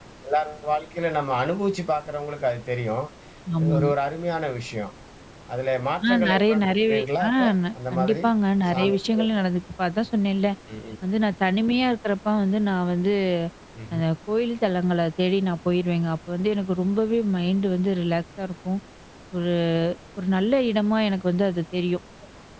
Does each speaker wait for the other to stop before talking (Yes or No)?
No